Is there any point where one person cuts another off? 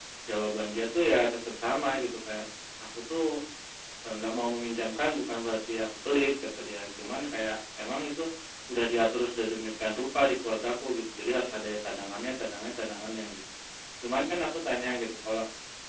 No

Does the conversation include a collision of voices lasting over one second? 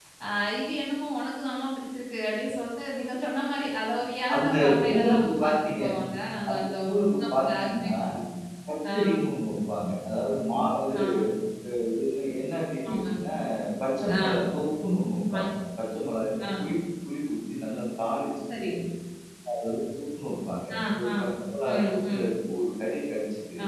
Yes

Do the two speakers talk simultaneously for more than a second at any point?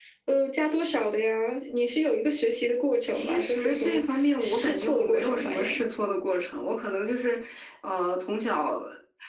Yes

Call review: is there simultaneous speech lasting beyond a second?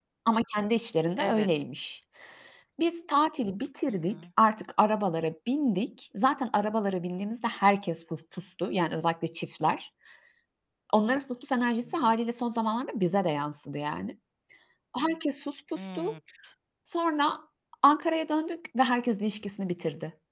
No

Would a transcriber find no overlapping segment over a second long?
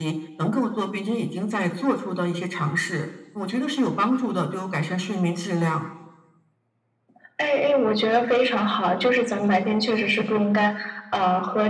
Yes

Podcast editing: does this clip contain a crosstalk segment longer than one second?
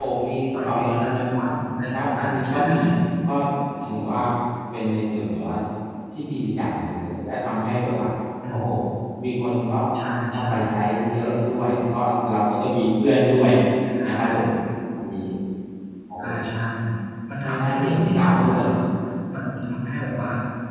Yes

